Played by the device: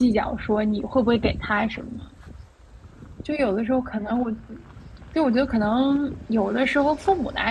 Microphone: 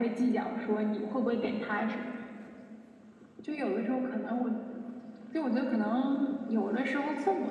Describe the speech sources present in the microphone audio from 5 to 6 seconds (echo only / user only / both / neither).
echo only